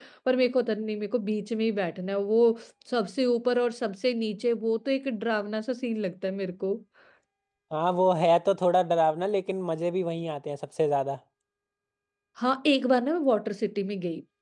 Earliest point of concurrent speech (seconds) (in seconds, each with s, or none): none